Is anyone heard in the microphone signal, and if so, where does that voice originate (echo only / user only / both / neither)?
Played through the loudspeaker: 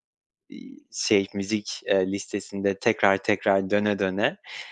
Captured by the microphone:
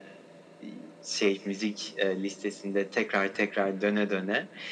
echo only